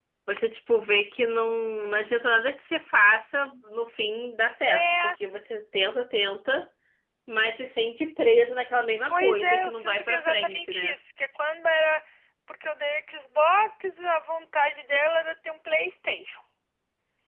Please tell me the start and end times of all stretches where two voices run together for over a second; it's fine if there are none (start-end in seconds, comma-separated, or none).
9.1-10.9